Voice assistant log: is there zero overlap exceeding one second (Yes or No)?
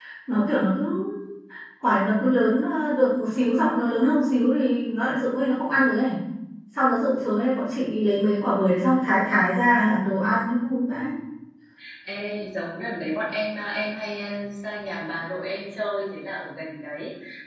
Yes